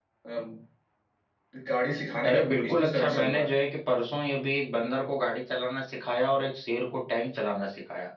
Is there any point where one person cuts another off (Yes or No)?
Yes